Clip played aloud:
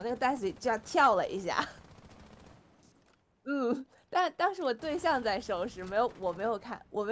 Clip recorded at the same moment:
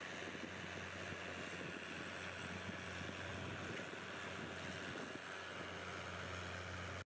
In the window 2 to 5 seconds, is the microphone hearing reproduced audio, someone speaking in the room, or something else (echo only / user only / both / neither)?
neither